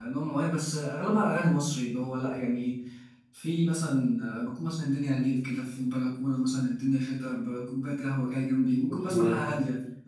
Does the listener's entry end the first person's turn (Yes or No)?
No